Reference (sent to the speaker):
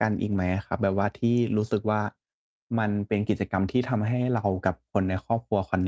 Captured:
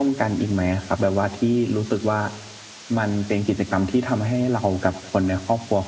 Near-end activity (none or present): none